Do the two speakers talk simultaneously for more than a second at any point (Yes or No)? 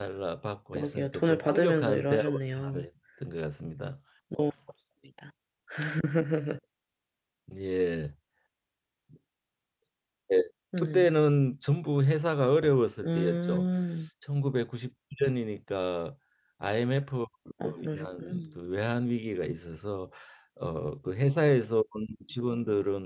Yes